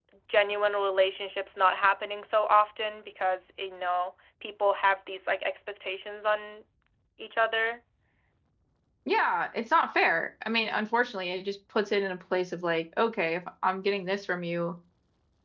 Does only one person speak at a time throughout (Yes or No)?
Yes